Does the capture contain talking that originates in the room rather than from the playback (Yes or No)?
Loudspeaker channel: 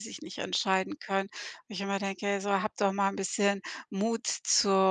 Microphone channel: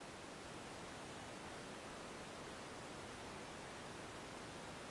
No